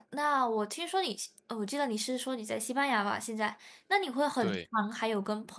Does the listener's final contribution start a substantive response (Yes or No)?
No